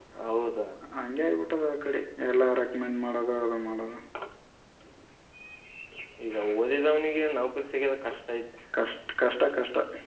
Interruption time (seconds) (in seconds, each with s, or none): none